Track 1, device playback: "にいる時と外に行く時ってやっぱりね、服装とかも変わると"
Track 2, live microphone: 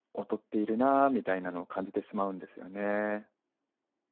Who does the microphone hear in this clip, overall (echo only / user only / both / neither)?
user only